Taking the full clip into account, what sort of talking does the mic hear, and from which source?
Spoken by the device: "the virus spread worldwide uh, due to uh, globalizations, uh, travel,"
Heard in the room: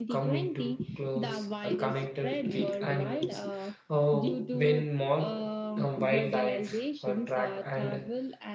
both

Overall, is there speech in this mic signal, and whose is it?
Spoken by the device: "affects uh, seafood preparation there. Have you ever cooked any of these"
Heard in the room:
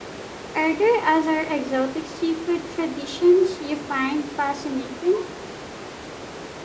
user only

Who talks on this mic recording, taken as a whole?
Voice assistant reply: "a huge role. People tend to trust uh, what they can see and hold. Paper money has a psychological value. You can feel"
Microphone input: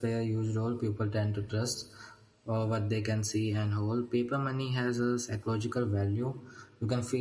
echo only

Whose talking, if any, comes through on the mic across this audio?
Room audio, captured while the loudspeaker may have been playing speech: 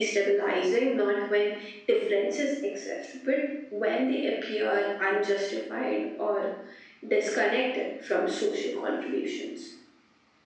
echo only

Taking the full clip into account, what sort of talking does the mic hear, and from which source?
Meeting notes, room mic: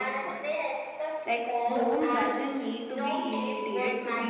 both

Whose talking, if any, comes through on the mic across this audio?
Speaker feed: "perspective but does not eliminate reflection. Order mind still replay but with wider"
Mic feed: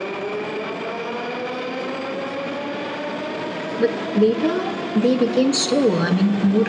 user only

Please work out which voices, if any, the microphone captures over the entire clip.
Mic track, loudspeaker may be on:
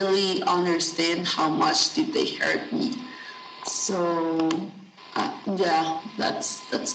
echo only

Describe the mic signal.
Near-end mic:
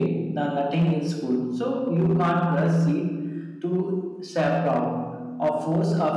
echo only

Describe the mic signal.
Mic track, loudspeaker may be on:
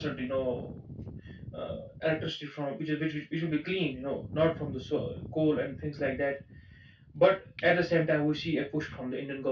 echo only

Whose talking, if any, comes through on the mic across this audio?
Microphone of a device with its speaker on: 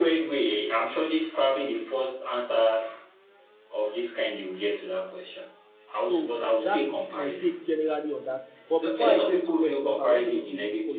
both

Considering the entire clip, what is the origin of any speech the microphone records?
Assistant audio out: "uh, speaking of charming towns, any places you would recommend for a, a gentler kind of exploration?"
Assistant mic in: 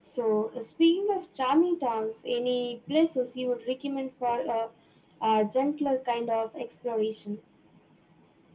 echo only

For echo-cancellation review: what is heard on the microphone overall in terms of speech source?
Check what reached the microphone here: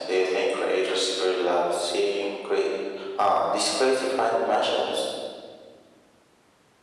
echo only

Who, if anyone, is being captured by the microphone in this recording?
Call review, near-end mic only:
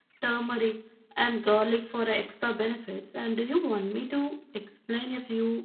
user only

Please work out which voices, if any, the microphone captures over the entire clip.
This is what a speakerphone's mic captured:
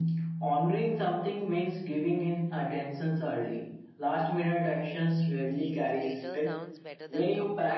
both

